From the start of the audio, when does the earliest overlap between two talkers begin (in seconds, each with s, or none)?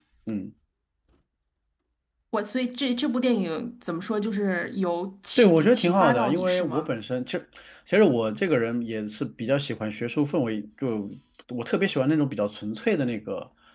5.4 s